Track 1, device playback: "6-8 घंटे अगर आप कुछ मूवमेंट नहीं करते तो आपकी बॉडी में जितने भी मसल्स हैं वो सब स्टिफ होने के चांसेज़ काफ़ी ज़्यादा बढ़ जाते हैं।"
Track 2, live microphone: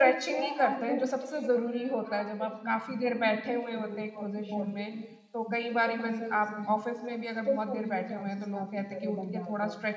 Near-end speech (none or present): present